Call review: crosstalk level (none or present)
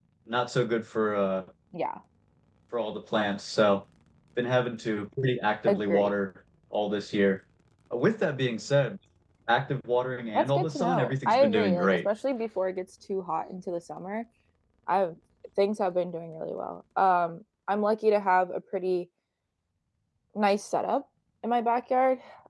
present